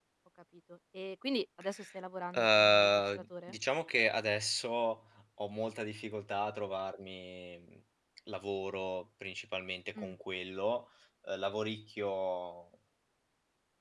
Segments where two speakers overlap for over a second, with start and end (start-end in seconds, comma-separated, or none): 2.4-3.6